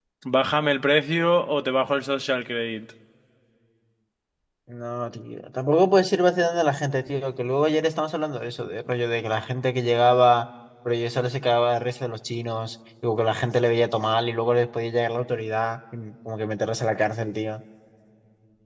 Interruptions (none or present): none